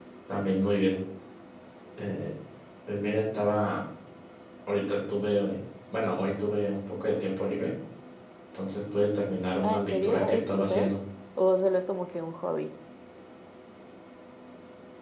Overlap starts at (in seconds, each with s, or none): 9.6 s